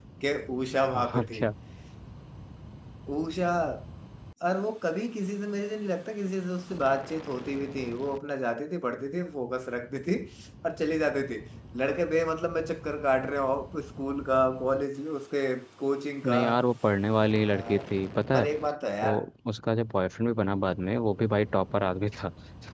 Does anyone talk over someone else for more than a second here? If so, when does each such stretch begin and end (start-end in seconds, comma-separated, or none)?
none